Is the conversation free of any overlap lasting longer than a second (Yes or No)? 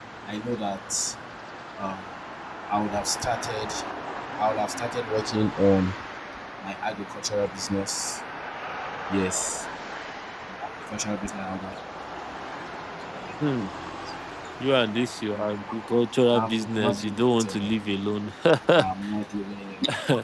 No